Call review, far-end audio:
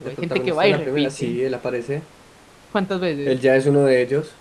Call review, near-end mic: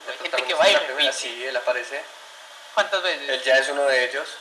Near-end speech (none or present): none